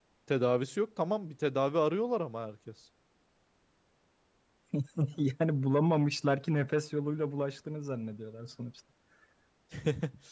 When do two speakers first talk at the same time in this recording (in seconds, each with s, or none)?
none